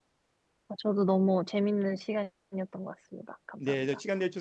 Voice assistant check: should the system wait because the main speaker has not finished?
No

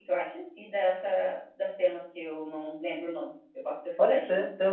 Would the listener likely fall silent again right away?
No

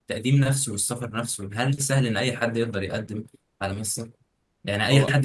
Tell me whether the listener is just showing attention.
Yes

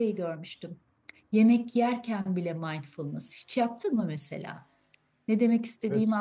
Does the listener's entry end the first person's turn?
Yes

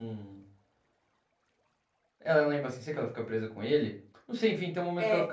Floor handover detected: No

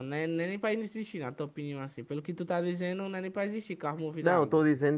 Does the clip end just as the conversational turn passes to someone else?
Yes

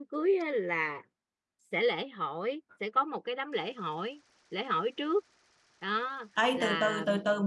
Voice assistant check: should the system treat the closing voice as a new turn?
Yes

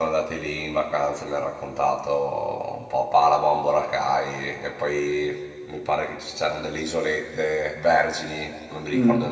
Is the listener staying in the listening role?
Yes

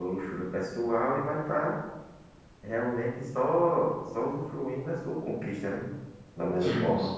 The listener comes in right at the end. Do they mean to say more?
Yes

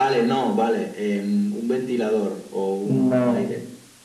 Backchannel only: No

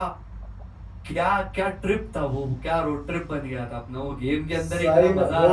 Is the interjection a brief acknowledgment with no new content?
No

